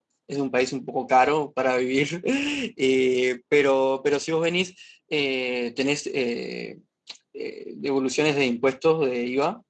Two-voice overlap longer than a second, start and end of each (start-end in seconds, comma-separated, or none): none